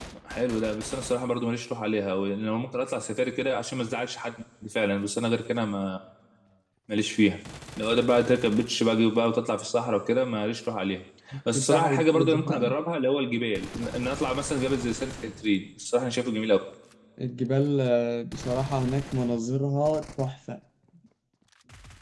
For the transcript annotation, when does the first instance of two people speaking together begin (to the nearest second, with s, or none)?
12 s